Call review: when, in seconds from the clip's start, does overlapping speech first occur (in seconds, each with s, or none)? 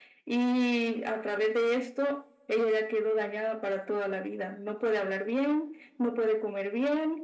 none